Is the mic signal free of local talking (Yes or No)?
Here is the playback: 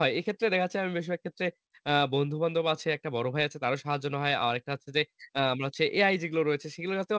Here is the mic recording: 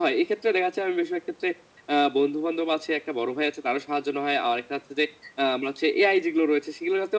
Yes